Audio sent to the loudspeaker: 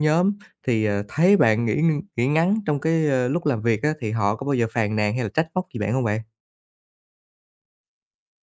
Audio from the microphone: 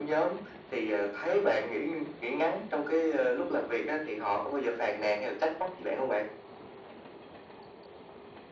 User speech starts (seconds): none

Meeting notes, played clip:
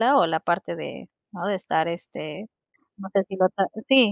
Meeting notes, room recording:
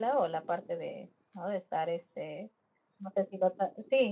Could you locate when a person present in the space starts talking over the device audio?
none

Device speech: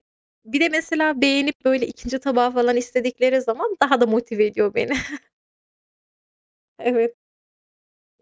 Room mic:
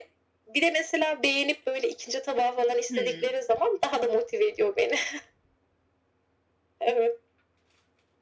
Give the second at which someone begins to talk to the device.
2.9 s

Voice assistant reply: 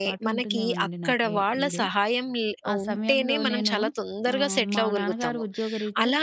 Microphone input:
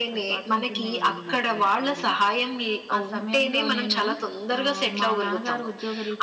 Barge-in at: none

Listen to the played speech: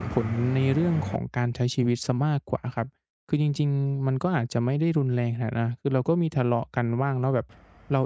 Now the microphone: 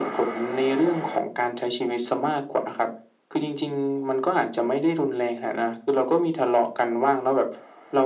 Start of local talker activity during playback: none

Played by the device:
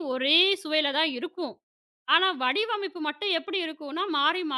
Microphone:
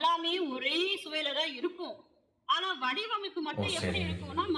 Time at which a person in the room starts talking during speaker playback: 3.6 s

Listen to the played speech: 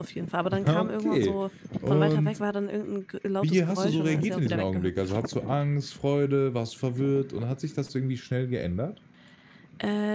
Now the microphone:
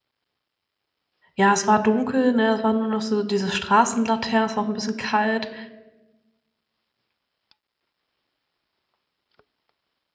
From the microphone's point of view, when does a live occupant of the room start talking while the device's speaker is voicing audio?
1.4 s

